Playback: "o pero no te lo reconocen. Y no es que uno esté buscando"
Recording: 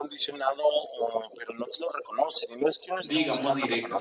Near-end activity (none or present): present